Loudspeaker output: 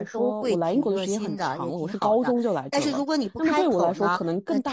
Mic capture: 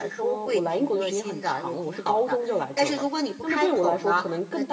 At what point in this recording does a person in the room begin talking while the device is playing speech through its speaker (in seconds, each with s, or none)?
none